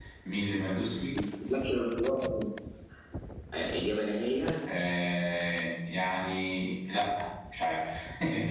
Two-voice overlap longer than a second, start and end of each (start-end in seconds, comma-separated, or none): none